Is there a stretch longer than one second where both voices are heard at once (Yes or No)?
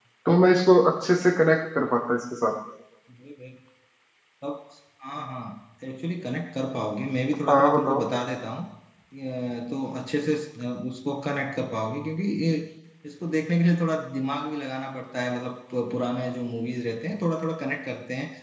No